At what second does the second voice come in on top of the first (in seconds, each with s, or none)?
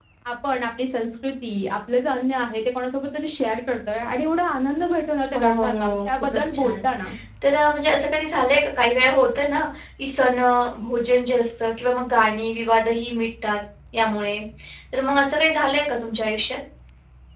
5.2 s